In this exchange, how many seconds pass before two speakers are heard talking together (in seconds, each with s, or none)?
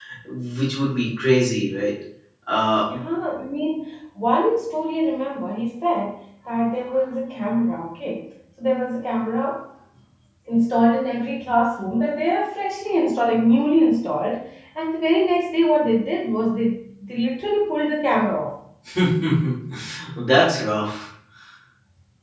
none